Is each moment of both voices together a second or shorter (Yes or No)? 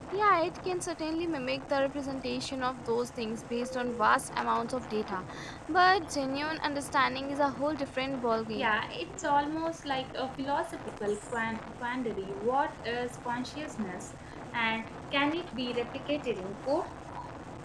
Yes